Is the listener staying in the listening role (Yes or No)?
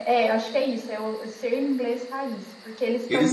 No